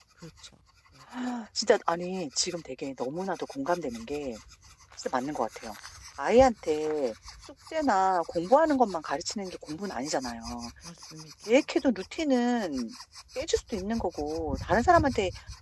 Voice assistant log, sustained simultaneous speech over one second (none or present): none